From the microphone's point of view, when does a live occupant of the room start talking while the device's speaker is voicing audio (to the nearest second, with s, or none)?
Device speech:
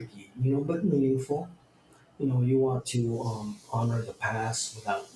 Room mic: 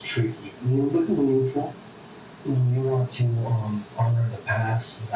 none